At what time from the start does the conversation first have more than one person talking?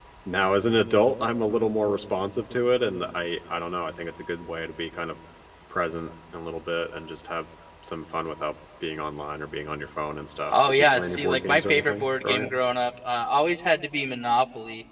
10.5 s

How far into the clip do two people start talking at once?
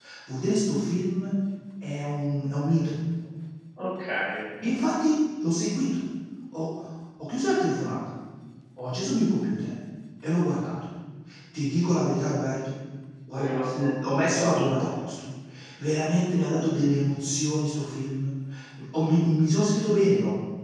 13.4 s

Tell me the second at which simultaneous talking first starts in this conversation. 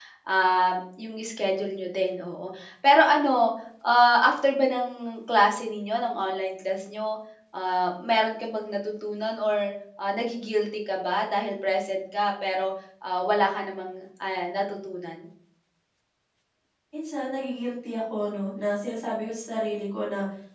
none

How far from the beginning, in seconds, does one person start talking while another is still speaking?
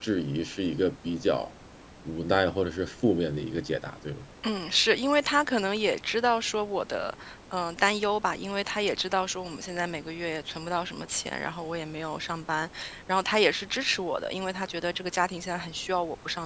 none

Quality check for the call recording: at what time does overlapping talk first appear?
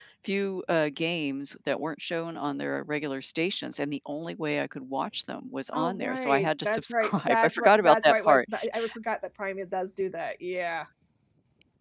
5.7 s

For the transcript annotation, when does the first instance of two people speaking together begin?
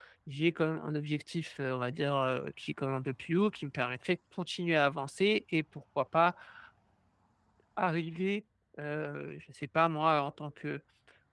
none

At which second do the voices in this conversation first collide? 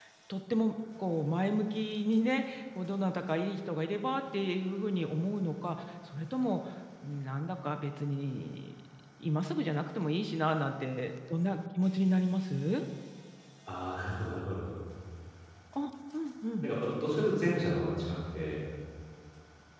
none

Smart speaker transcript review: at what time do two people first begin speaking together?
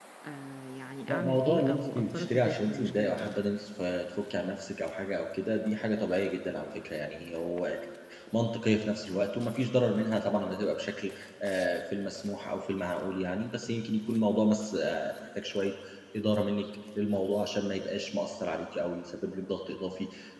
1.1 s

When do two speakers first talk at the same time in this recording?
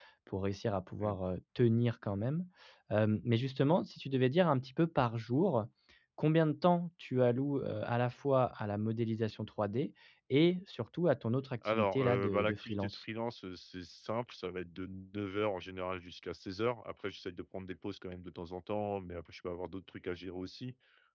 11.6 s

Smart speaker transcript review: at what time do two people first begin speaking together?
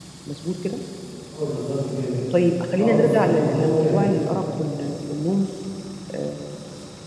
2.8 s

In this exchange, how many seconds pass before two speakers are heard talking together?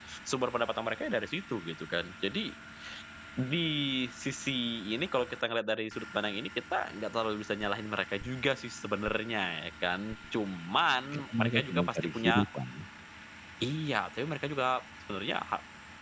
11.1 s

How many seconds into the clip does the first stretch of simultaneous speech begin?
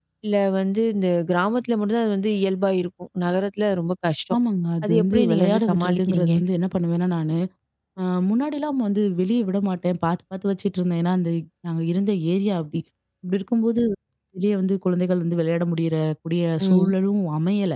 4.8 s

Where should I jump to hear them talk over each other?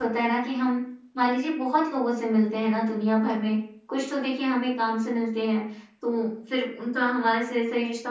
none

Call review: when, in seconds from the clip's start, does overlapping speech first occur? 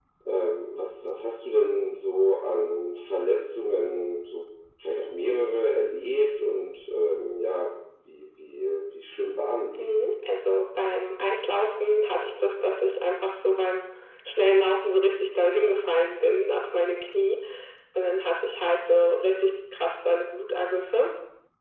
none

